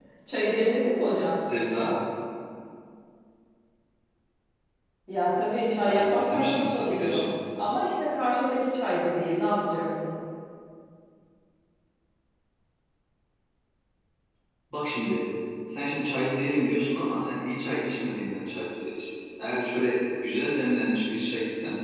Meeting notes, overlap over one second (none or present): present